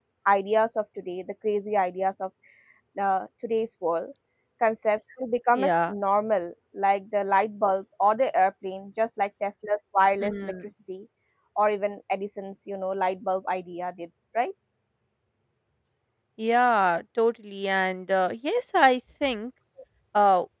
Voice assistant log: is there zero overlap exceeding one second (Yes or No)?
Yes